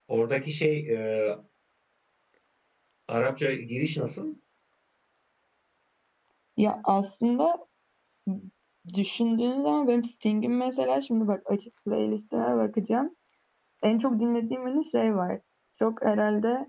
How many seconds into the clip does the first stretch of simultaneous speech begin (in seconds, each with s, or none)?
none